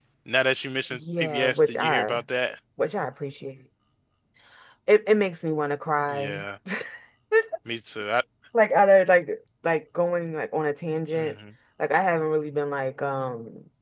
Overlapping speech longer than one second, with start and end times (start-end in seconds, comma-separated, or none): 0.9-2.2